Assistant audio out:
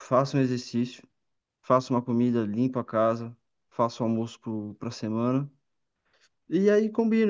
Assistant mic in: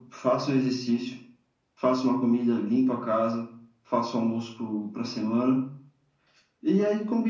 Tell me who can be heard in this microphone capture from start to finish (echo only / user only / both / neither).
echo only